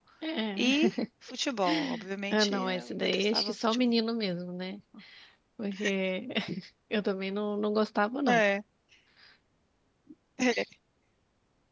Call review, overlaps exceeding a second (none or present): present